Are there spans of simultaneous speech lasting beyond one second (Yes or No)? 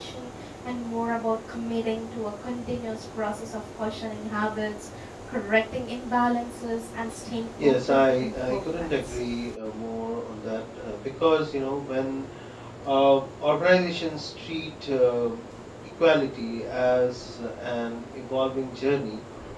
Yes